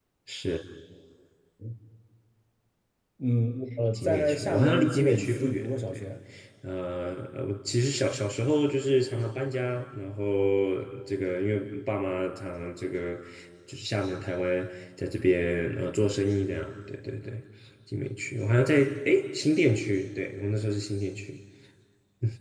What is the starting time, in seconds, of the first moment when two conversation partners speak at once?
4 s

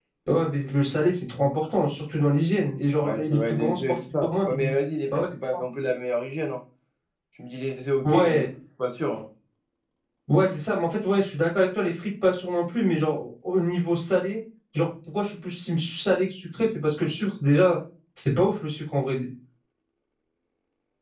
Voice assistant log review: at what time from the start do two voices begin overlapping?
3 s

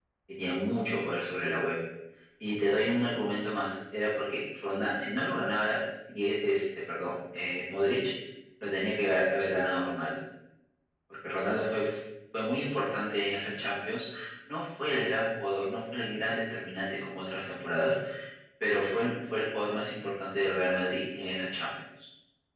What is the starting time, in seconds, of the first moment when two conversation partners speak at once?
none

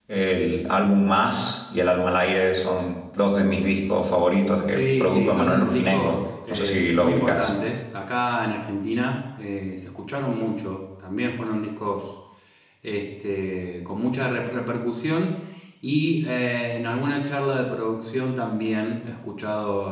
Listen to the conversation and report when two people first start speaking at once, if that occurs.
5 s

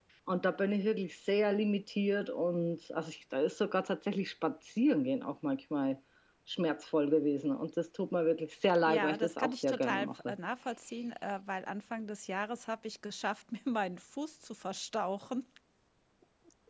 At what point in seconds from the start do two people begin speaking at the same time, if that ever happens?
9 s

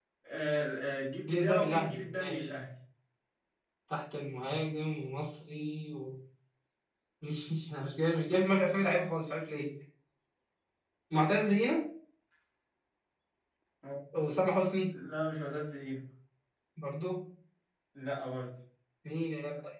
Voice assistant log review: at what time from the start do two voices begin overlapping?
1 s

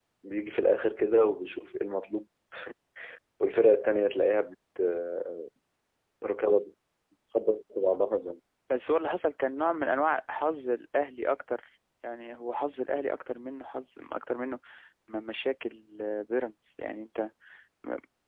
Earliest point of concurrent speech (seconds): none

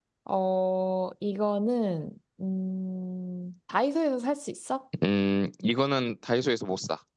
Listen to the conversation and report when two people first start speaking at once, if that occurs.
none

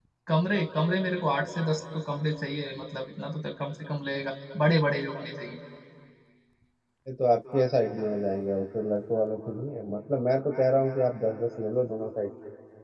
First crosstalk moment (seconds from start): none

